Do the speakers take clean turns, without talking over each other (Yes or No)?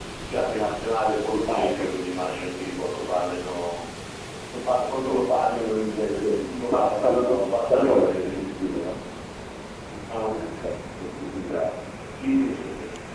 No